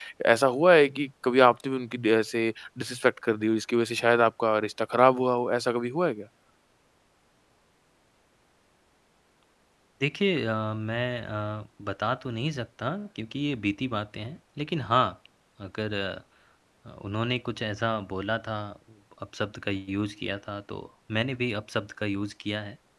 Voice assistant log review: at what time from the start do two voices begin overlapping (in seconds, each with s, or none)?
none